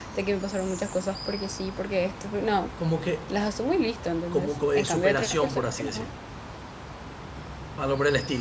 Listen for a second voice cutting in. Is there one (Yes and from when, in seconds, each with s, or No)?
Yes, from 4.3 s